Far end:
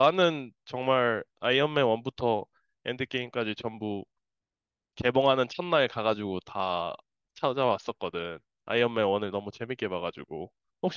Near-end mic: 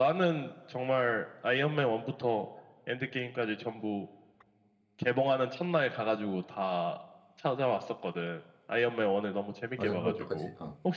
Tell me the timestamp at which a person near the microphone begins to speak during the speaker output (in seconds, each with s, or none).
9.7 s